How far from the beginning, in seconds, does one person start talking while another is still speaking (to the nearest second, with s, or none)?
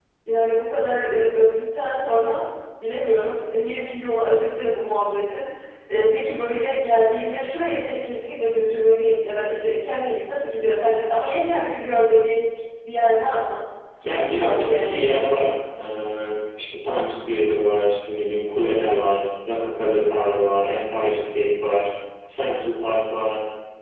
14 s